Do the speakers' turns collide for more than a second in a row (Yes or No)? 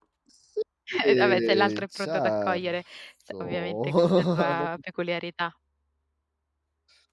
Yes